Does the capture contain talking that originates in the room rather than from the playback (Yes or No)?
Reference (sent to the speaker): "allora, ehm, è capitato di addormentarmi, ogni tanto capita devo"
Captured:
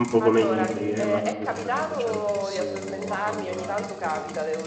Yes